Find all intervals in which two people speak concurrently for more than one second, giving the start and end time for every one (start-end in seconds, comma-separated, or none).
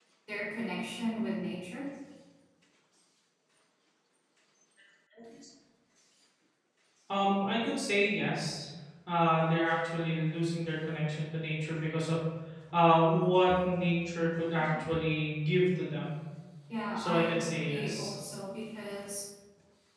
16.9-18.2